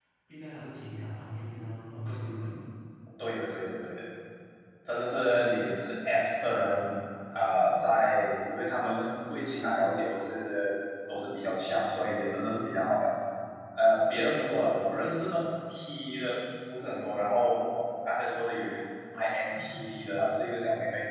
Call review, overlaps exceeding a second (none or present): none